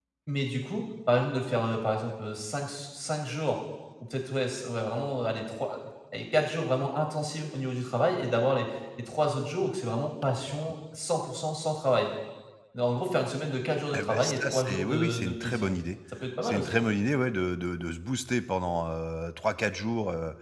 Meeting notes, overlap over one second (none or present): present